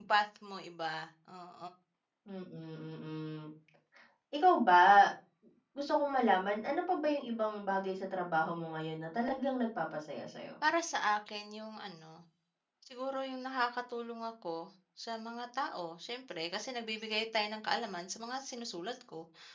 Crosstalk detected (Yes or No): No